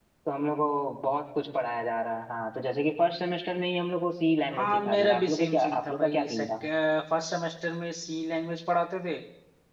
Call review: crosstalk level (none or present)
present